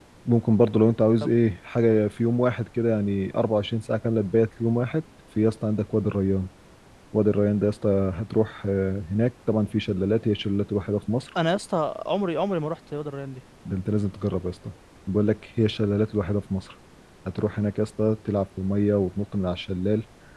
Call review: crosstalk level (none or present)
none